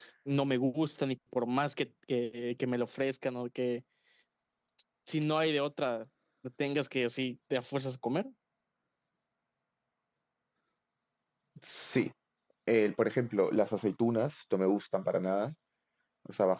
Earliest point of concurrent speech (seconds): none

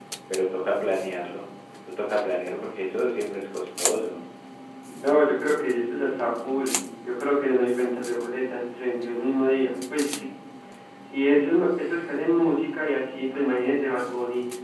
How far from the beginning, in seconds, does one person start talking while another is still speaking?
none

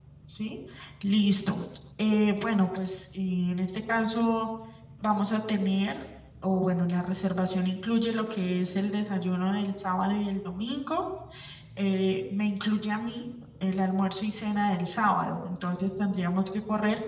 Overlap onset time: none

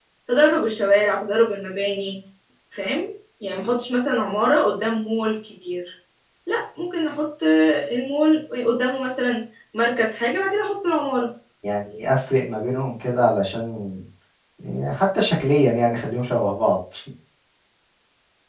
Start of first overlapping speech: none

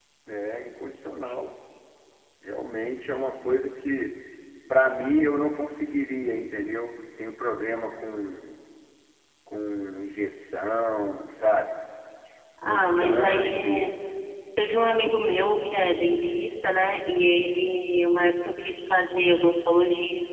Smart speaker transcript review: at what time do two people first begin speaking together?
12.7 s

